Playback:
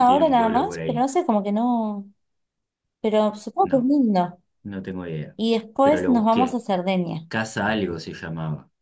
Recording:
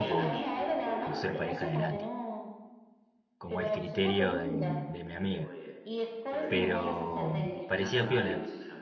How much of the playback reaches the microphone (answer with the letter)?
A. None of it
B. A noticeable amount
B